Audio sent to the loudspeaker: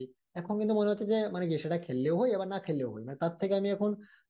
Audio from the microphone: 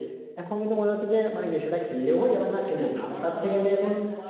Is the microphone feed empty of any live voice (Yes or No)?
No